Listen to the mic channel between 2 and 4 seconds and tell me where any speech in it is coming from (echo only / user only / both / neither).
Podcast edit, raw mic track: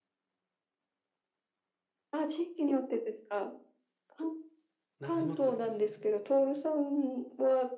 echo only